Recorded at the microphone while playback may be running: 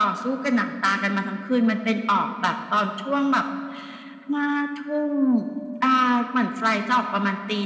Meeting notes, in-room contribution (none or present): none